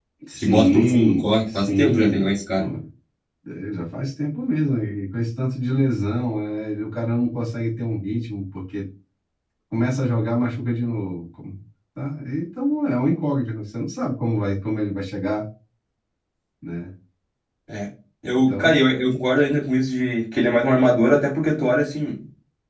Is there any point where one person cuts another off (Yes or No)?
Yes